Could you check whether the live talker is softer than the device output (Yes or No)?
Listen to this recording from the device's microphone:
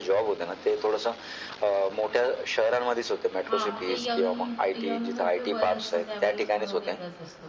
Yes